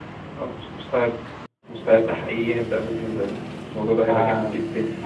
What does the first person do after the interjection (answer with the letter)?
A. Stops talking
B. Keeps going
A